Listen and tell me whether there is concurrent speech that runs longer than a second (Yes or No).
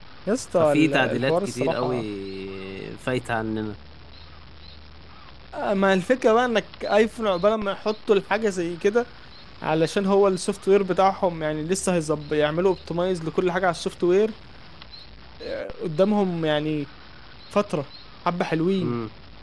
Yes